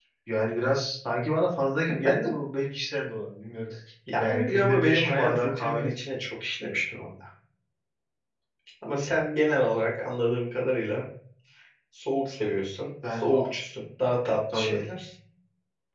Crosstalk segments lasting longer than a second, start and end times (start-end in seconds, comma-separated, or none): 4.2-5.8